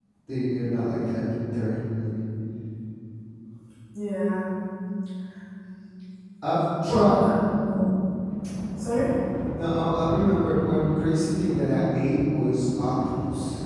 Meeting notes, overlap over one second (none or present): none